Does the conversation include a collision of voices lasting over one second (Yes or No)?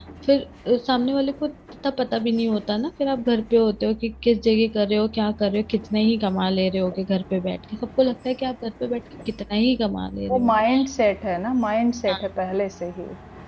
No